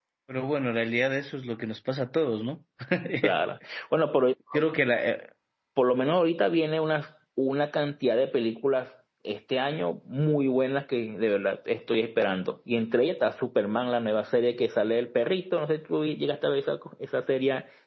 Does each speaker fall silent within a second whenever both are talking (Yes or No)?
Yes